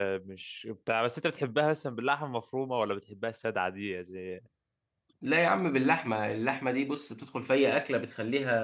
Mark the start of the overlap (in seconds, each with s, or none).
none